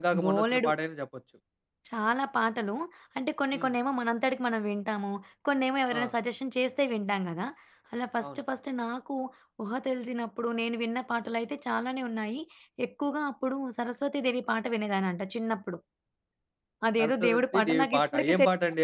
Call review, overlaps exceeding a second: present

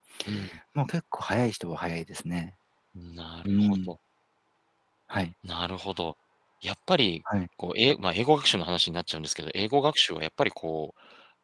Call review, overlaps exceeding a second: none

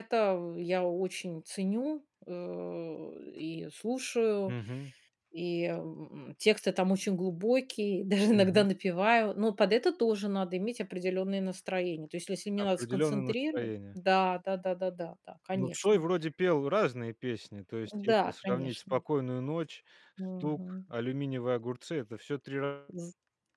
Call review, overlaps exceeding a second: present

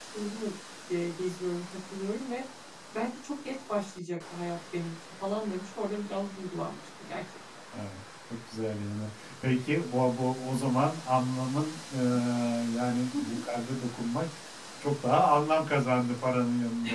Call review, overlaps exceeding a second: none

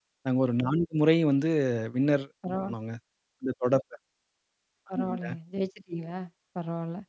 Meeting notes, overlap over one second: none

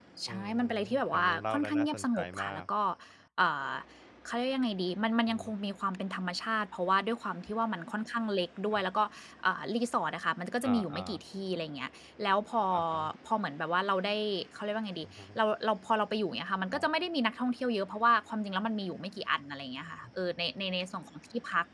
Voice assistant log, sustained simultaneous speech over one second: present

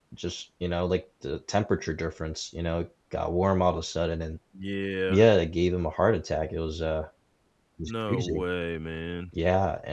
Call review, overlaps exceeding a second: none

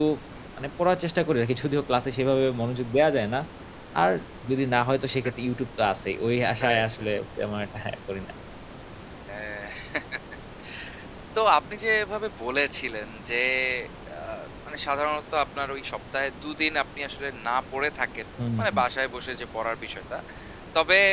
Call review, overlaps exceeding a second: none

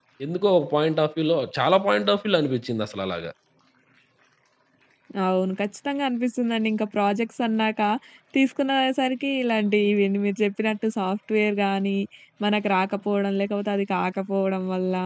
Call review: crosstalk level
none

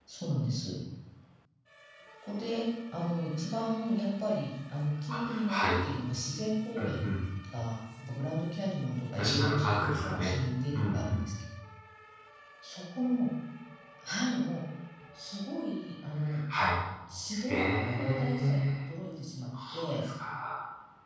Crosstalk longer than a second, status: present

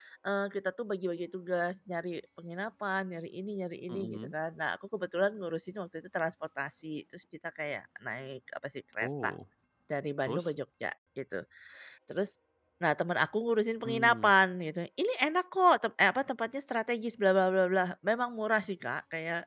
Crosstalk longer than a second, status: none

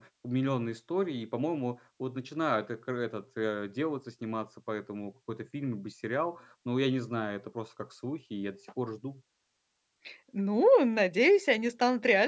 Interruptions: none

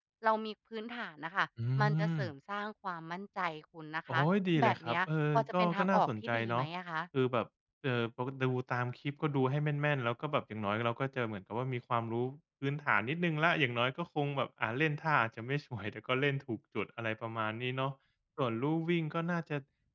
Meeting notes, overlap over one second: present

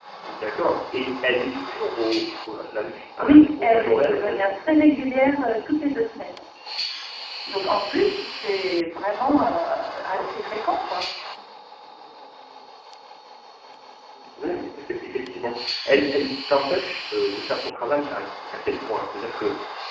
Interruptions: present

